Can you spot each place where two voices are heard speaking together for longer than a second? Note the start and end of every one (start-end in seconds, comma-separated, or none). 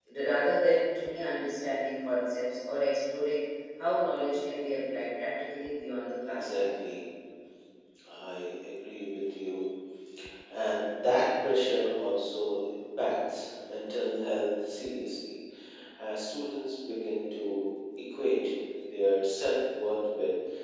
none